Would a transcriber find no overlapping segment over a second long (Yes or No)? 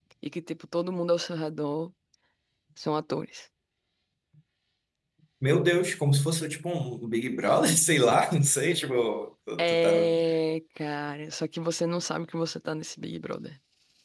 Yes